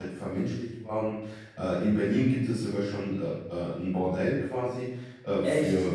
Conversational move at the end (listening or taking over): listening